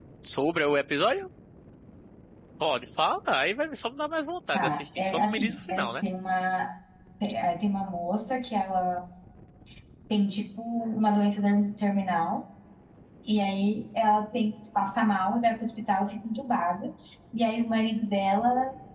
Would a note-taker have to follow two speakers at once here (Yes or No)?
Yes